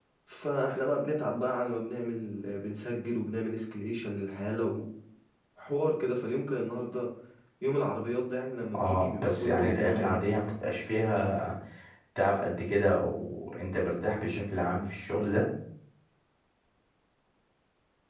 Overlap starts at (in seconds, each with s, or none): 8.7 s